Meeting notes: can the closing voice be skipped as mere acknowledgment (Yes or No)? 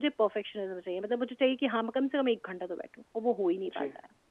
No